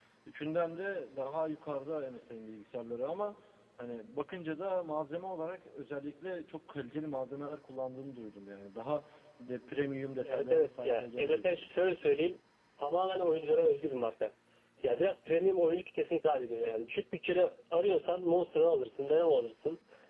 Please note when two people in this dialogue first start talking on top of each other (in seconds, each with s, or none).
10.2 s